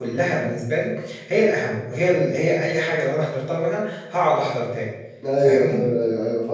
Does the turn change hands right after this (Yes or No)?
Yes